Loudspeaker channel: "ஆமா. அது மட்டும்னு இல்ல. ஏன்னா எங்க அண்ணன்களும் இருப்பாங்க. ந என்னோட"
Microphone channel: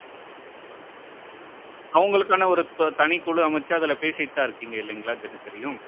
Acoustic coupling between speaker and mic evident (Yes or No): No